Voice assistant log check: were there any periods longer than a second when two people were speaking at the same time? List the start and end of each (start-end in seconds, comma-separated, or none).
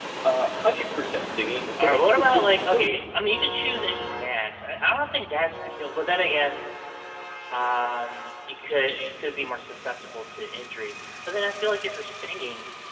1.8-3.0